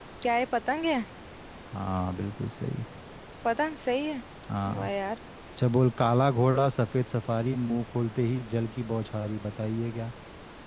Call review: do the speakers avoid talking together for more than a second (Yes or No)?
Yes